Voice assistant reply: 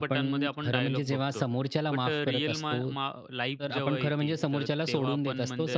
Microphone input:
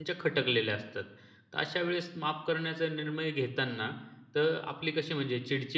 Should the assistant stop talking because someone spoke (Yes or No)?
Yes